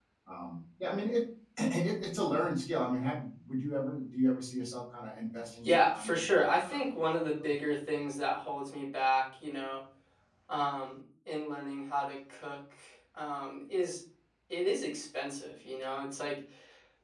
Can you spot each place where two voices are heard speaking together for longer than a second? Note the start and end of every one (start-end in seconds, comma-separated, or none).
5.6-7.4